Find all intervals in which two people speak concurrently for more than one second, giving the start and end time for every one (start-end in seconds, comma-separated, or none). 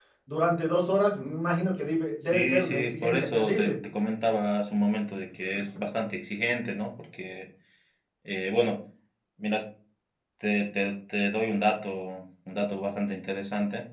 2.3-3.7